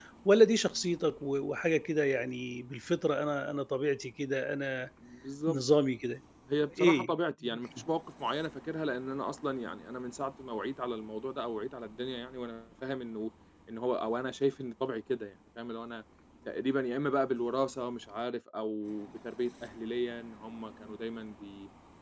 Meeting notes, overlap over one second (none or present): none